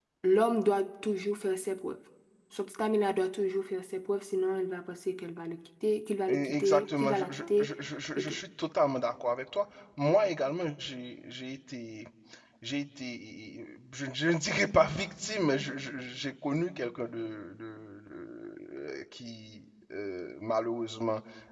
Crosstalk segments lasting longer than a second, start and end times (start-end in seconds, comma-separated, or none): 6.3-7.7